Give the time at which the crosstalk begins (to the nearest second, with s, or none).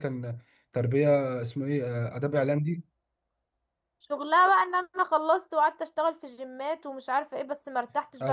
none